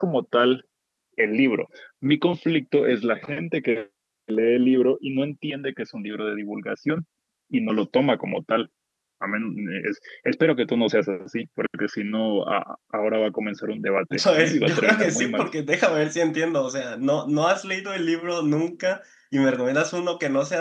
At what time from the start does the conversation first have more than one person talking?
14.1 s

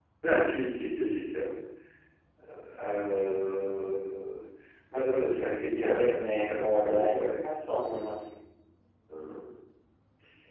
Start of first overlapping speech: 5.7 s

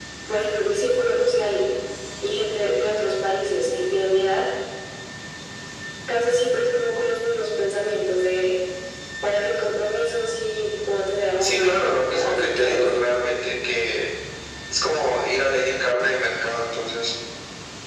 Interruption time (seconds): 11.4 s

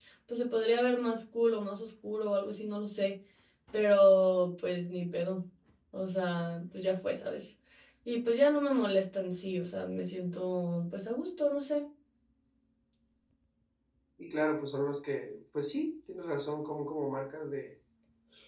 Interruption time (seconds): none

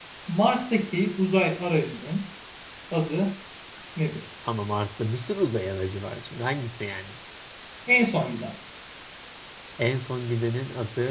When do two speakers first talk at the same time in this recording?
none

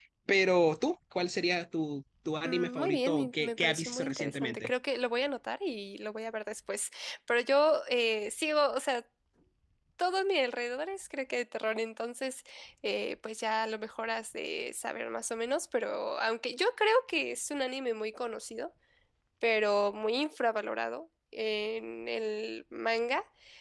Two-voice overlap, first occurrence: 2.4 s

